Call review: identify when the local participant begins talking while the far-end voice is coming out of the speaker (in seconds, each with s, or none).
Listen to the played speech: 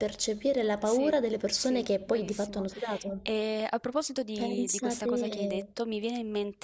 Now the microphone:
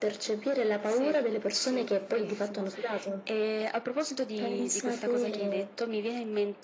none